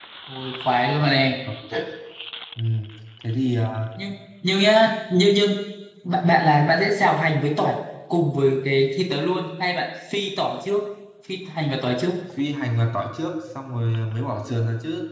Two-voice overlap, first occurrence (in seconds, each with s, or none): none